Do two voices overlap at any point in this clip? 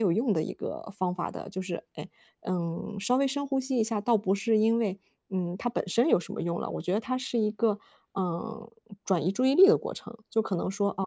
No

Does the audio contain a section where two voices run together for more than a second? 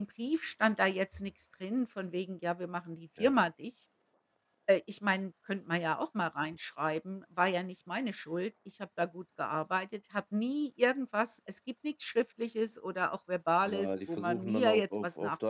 Yes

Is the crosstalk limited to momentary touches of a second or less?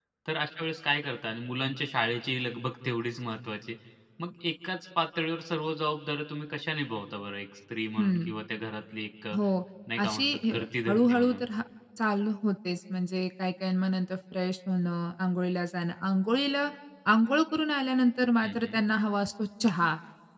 No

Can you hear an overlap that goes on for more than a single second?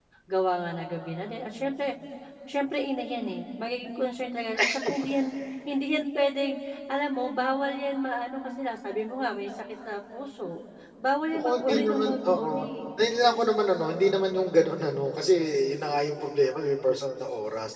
Yes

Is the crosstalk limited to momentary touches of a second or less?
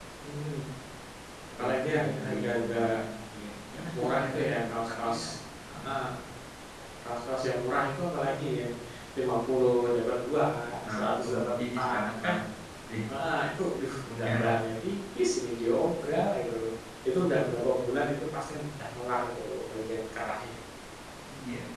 No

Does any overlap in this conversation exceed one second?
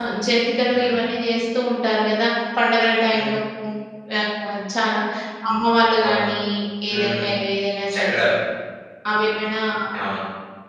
No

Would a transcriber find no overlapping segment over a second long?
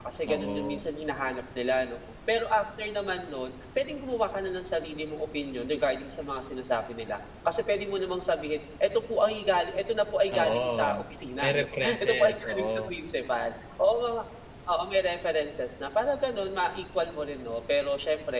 No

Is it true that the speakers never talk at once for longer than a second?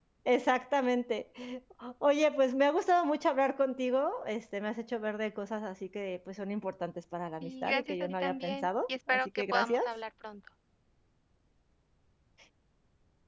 No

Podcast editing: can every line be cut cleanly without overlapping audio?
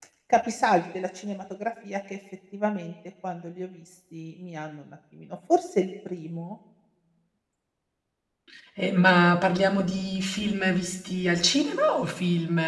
Yes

